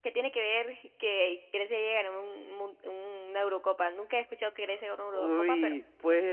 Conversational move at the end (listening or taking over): taking over